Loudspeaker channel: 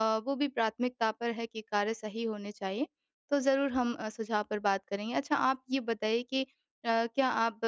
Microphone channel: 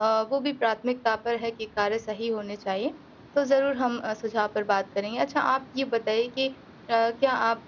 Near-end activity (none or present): none